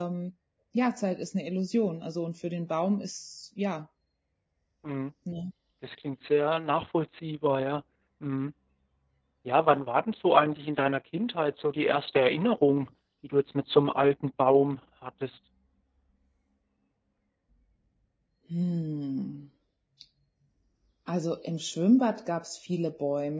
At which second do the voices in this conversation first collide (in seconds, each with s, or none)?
none